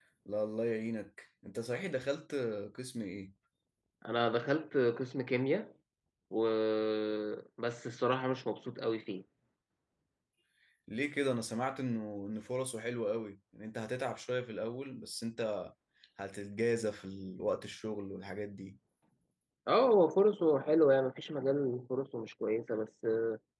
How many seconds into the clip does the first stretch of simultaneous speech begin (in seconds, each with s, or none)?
none